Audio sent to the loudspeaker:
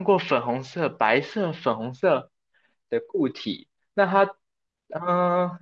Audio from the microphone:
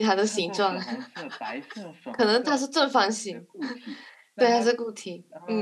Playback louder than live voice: No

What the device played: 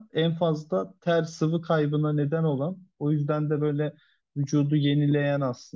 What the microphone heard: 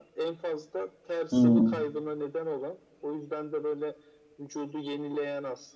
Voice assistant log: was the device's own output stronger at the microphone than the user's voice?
No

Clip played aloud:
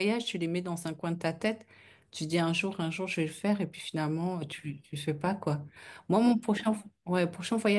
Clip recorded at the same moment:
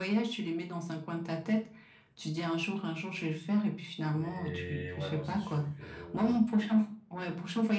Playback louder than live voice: Yes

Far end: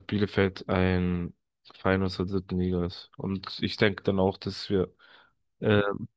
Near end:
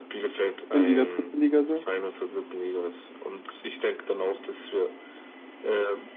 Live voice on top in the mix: Yes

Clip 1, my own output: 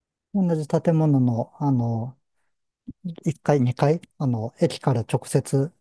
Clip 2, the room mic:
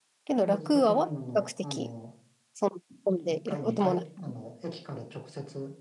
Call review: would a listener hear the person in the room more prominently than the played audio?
Yes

